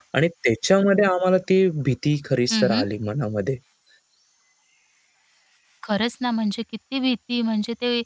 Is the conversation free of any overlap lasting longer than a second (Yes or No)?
Yes